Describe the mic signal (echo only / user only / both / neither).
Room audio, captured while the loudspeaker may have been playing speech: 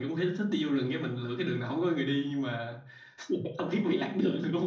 echo only